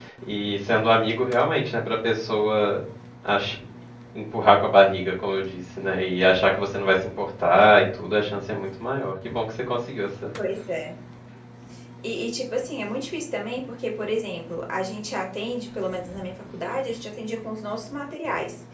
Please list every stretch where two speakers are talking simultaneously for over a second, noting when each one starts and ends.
none

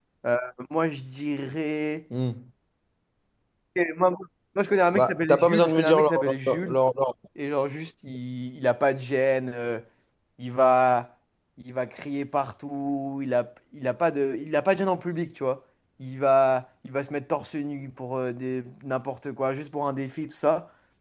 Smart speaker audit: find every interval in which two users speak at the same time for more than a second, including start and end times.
4.9-6.8

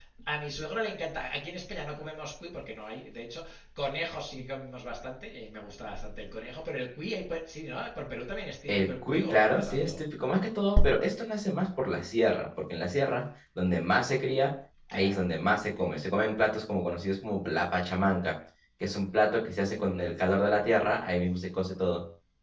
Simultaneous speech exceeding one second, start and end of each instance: 8.7-10.0

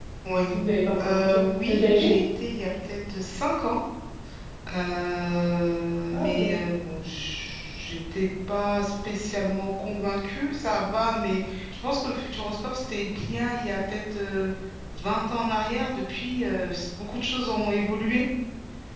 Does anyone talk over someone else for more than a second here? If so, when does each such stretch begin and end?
1.0-2.2

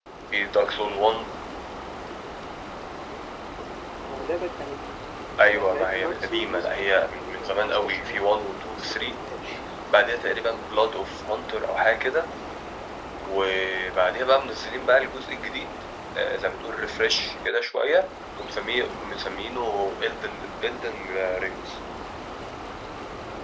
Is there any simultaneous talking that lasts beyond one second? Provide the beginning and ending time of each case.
5.4-8.3

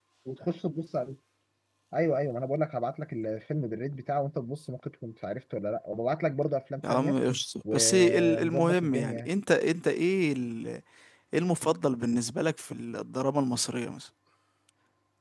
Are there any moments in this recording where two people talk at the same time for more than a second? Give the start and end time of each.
7.7-9.3

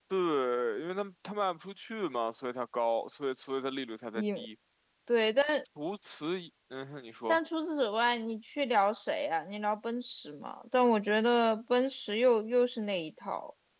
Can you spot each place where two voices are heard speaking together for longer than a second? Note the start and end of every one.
none

